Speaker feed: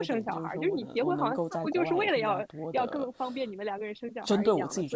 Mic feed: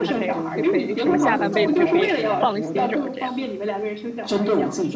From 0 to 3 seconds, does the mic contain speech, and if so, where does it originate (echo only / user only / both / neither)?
both